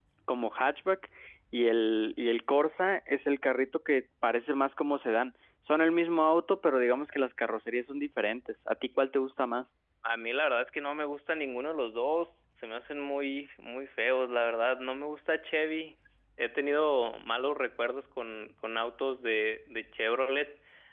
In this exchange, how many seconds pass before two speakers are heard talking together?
none

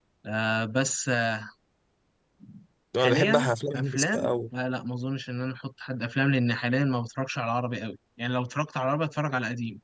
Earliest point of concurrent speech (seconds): 3 s

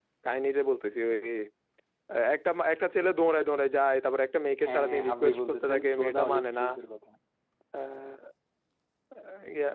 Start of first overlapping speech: 5 s

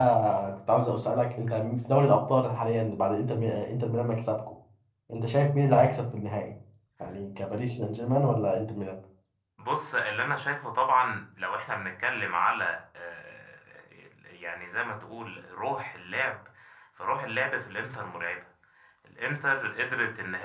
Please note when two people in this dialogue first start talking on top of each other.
none

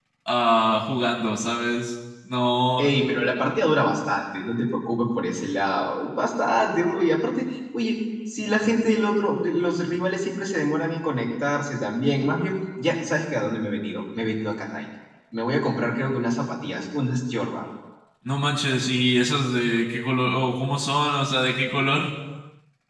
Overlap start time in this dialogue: none

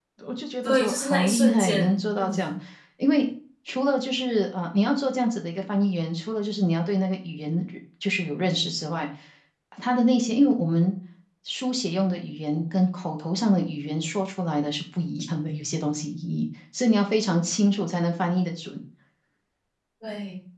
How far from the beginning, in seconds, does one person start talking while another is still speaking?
1 s

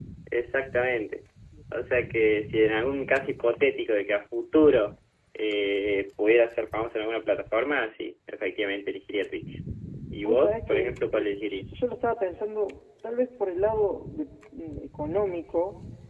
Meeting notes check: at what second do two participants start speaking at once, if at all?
10 s

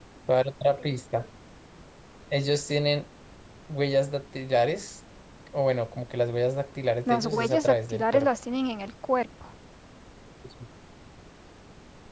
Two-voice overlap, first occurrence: 7 s

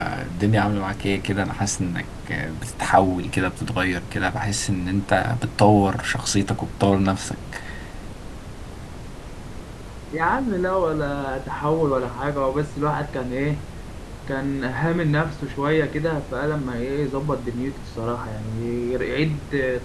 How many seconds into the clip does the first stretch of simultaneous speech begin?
none

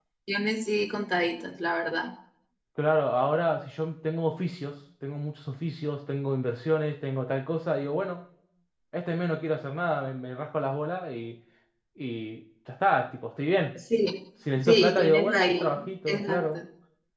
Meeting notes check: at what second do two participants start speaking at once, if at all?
15 s

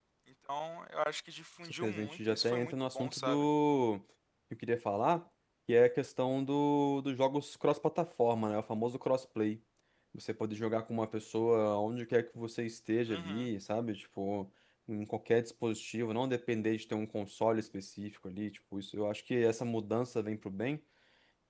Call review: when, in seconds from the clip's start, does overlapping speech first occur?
2 s

